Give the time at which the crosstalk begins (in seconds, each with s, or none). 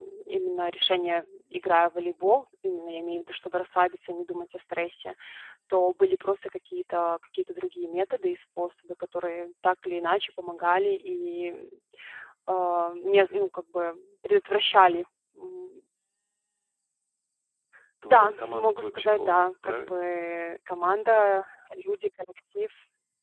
18.0 s